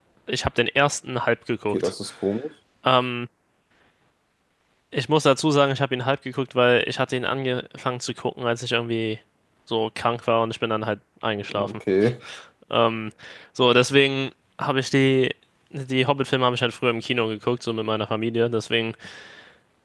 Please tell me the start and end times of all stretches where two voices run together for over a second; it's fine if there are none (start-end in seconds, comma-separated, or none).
none